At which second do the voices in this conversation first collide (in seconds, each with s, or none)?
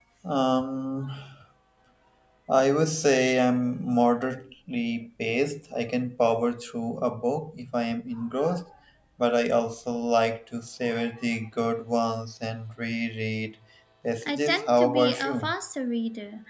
14.2 s